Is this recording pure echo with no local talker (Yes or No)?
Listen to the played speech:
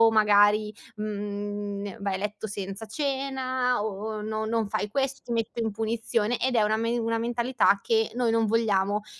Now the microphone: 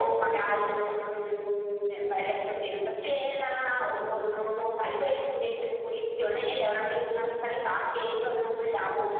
Yes